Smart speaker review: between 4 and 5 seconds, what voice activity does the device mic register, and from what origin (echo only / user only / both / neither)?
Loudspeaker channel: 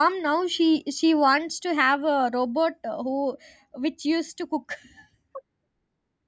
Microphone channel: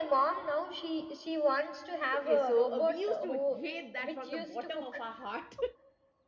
both